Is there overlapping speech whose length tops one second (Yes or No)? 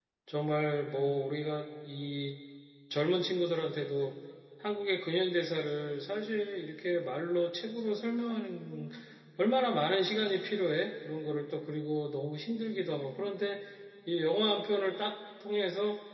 No